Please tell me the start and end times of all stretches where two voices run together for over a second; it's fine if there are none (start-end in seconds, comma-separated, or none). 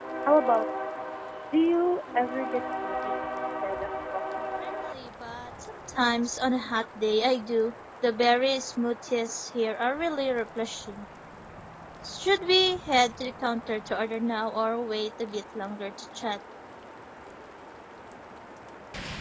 none